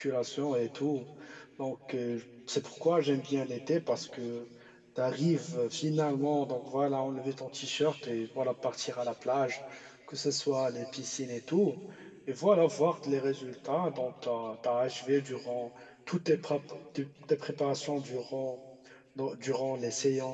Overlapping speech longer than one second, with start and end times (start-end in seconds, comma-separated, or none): none